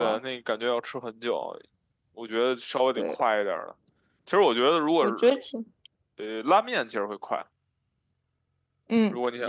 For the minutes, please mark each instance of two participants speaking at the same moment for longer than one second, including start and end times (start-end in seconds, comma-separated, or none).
none